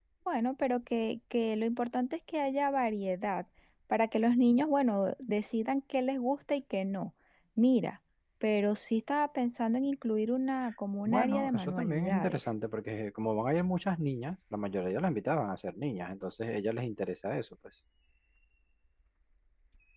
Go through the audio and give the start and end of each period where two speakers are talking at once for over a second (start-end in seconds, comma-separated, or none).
11.1-12.4